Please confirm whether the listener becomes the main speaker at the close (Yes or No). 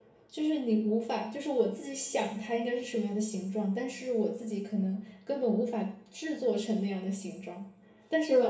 No